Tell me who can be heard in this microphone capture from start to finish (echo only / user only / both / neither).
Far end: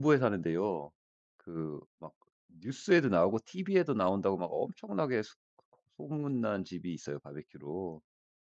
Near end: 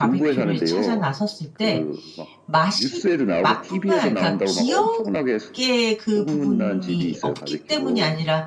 both